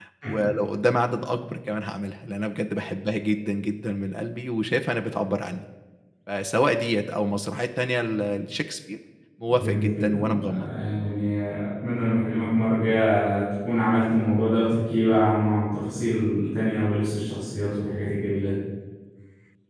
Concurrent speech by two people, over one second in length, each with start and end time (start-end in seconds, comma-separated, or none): 9.5-10.7